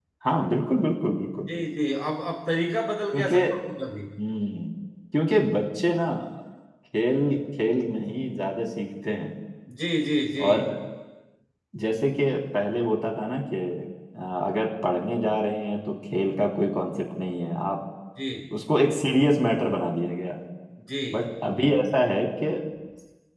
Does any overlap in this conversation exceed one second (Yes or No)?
No